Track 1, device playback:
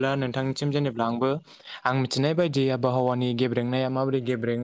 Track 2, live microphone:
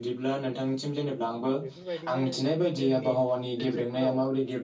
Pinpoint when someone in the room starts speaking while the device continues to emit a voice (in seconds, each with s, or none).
1.6 s